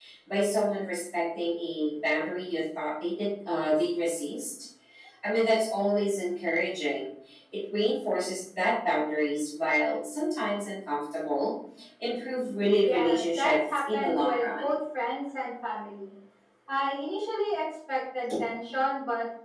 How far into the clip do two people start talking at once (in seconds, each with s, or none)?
12.8 s